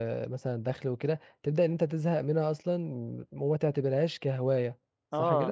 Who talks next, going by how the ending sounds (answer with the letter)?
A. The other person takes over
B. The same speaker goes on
A